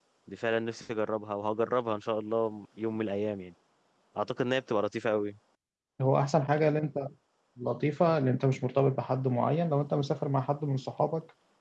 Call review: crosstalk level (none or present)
none